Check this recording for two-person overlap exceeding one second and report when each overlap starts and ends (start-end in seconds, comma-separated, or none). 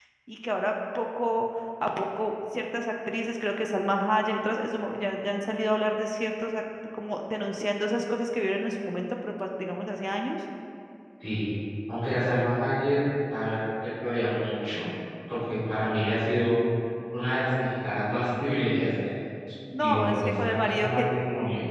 19.8-21.0